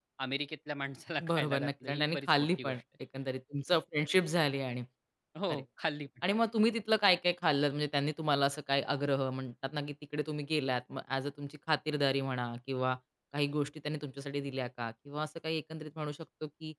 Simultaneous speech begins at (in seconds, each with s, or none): 1.3 s